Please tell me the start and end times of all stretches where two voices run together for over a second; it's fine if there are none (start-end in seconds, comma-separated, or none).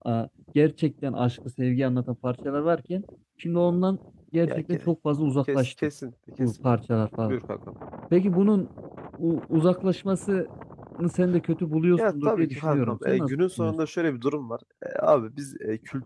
12.0-13.7